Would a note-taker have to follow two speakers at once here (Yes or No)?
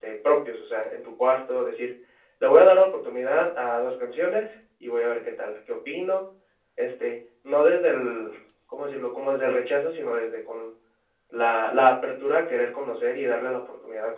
No